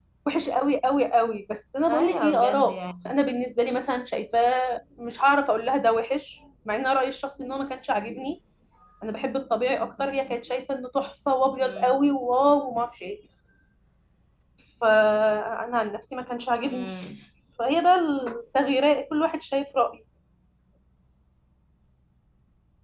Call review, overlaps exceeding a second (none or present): present